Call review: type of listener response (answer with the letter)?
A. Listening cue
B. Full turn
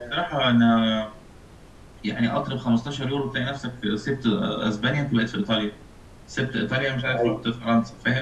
A